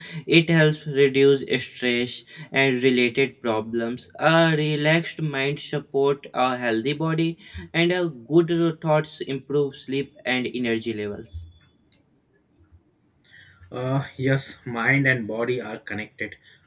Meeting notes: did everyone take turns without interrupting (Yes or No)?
Yes